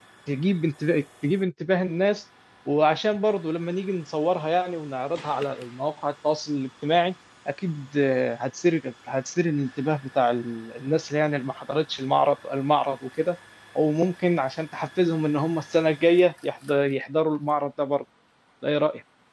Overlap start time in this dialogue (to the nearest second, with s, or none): none